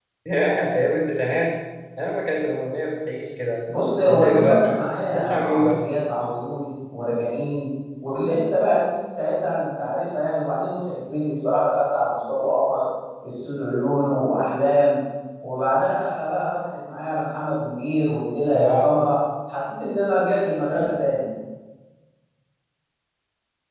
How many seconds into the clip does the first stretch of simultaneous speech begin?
4.1 s

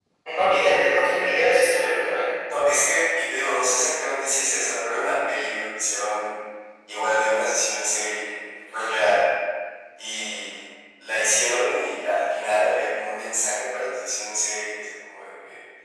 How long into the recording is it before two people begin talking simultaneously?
none

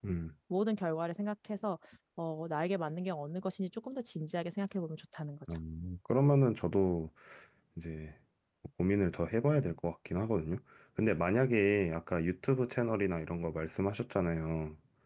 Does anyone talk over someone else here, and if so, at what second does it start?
none

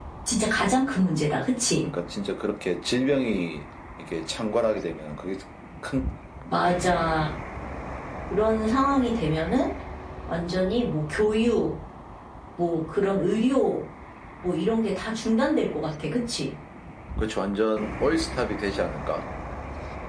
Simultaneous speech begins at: none

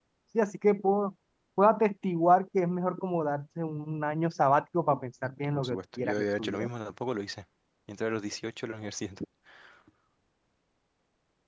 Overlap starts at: 5.2 s

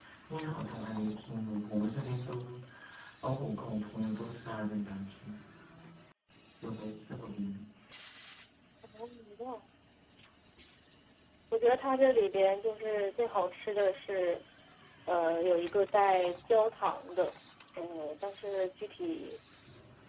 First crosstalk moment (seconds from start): none

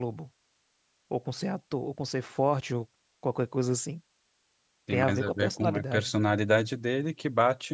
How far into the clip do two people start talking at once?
4.9 s

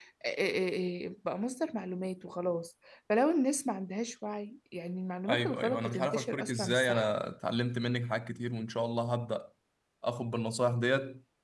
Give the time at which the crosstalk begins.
5.2 s

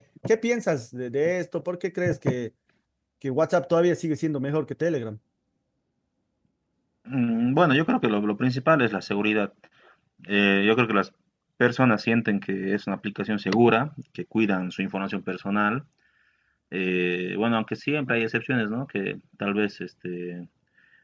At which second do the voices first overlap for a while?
none

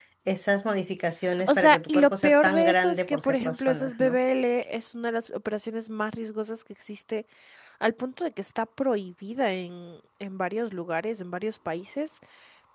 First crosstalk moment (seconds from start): 1.4 s

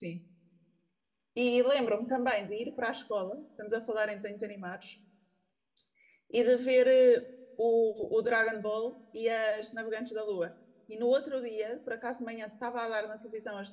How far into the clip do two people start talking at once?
none

